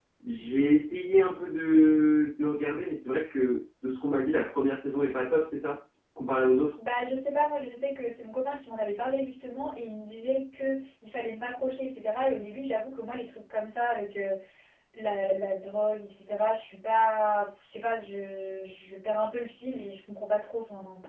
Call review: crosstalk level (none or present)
none